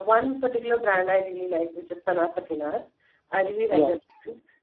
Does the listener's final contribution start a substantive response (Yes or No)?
No